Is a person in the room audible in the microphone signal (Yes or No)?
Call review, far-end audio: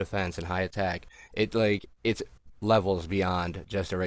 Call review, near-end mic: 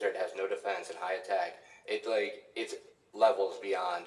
No